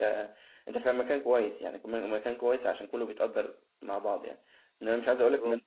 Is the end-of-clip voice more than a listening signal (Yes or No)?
No